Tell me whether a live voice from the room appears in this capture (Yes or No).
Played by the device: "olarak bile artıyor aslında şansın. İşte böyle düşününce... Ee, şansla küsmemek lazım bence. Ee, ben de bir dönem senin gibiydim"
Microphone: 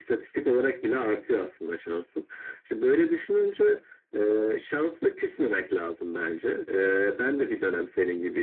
No